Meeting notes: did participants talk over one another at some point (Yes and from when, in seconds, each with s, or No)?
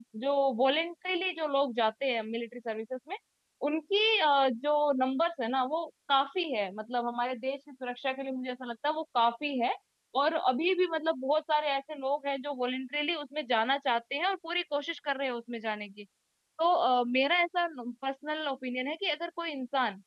No